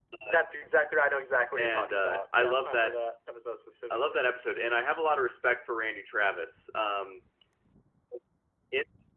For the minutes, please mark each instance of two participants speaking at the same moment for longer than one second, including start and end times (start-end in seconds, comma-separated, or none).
1.6-3.0